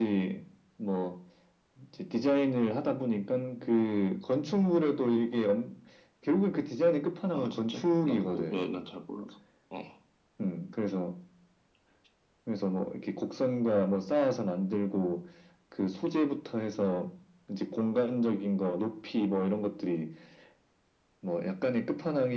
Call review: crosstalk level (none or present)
present